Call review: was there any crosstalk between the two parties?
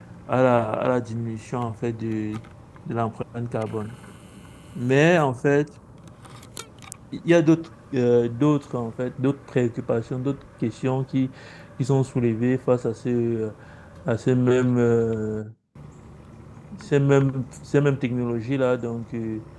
No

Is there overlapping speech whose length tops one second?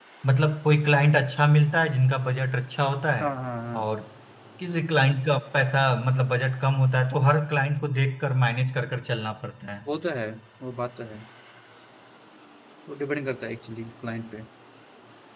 No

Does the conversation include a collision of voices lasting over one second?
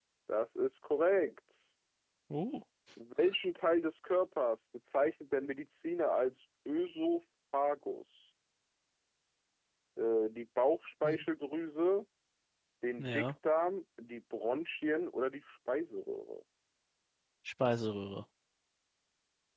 No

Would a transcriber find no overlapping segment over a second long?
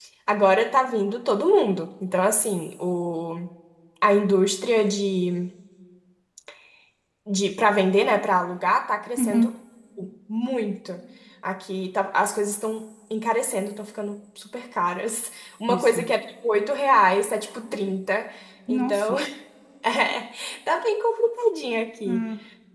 Yes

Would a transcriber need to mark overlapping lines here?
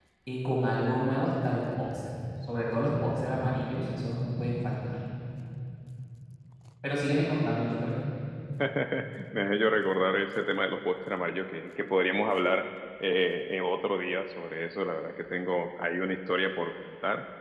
No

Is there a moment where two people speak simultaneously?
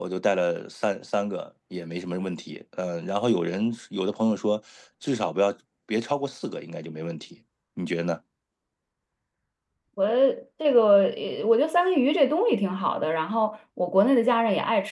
No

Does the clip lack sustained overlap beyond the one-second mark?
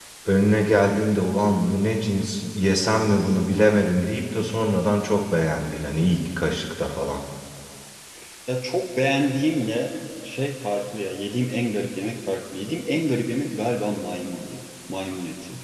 Yes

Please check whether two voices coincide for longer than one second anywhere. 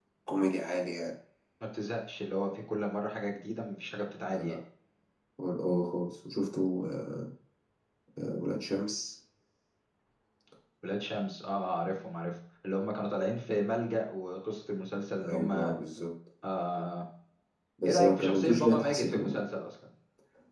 Yes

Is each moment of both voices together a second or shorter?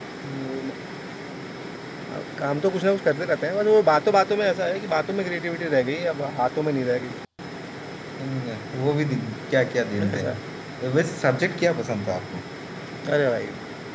Yes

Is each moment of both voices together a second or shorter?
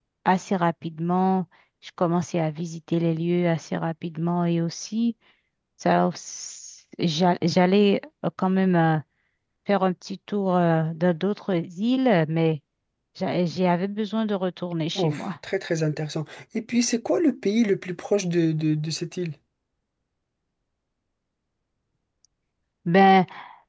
Yes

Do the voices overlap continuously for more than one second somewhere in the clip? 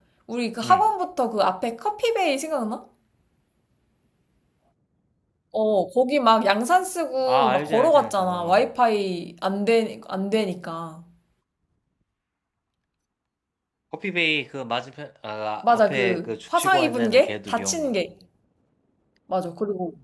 Yes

